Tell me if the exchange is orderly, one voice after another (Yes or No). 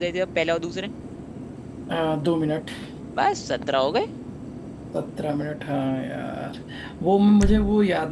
Yes